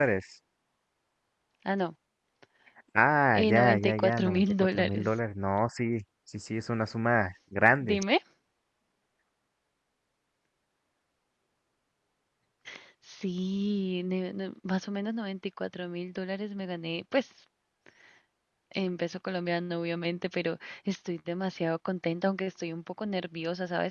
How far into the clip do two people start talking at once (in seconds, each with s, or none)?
3.3 s